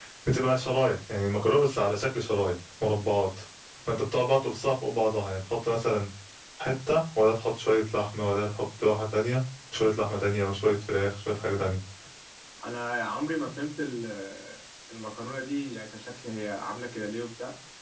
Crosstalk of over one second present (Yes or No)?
No